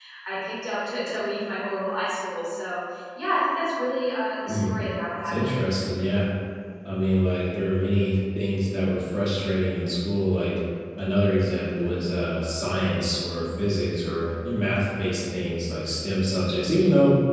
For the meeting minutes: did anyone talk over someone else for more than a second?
No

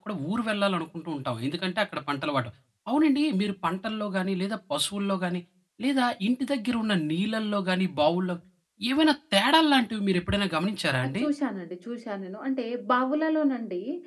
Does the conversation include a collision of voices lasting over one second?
No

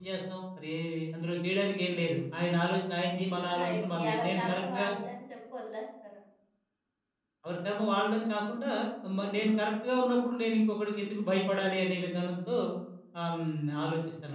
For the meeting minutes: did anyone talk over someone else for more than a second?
Yes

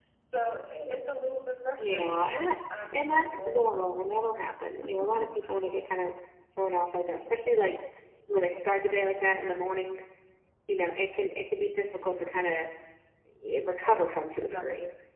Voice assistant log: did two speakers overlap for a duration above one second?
Yes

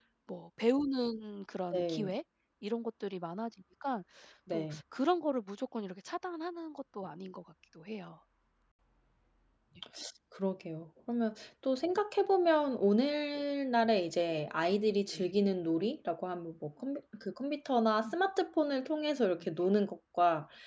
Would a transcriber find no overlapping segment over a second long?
Yes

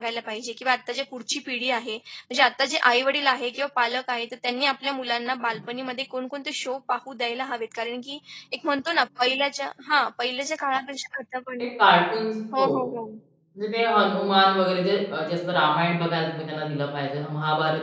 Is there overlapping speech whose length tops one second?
No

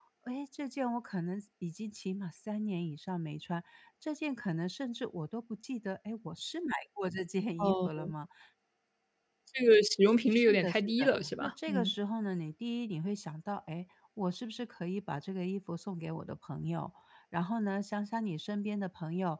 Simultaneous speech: Yes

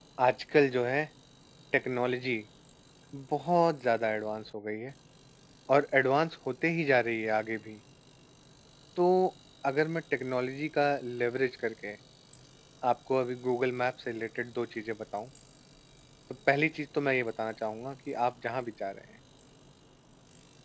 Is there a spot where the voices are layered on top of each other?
No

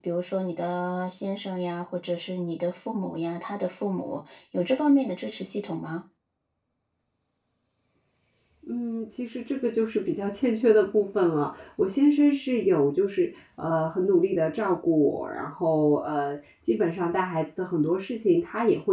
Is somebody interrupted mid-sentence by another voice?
No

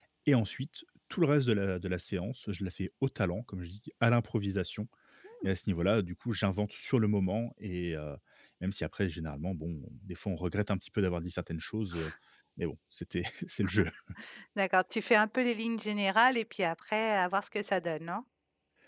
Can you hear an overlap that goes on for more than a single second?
No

